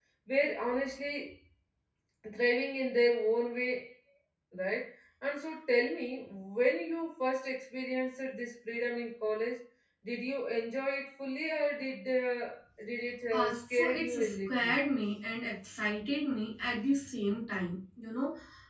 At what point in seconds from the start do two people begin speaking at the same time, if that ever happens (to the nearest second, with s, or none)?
13 s